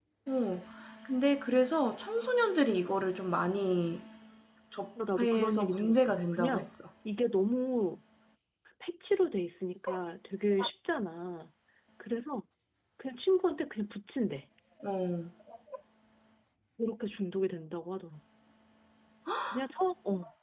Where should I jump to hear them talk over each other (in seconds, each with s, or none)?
5.2 s